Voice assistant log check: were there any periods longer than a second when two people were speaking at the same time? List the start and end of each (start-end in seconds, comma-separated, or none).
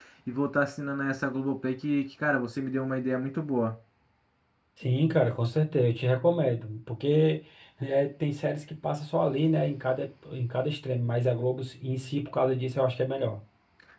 none